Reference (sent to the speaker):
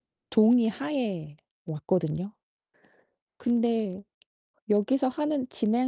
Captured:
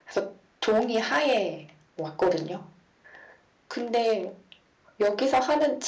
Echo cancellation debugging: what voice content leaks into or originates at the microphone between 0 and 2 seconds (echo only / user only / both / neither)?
echo only